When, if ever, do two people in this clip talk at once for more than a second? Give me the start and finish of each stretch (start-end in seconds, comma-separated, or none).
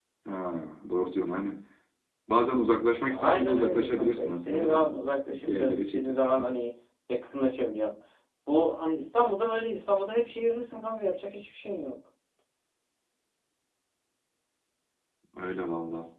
3.0-4.9, 5.3-6.5